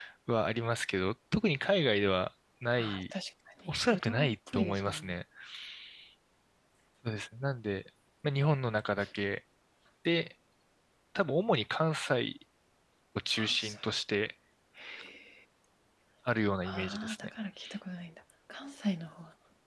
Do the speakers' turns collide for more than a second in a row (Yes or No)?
Yes